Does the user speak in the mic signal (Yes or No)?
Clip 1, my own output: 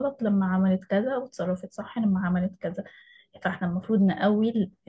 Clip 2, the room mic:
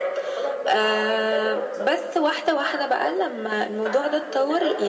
Yes